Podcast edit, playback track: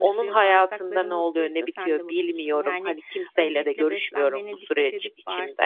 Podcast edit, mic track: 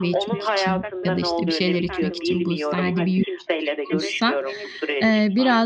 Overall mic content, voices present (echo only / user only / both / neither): both